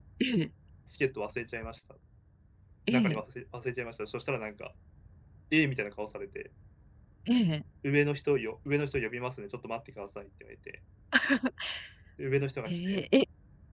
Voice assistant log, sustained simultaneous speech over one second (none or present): none